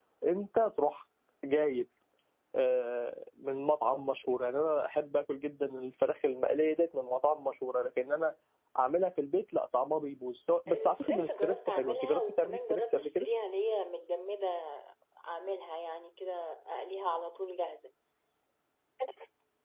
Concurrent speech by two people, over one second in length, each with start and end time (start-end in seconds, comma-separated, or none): 10.7-13.2